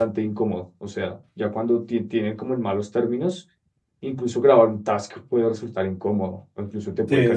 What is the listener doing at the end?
taking over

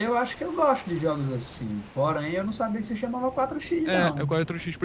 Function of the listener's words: taking over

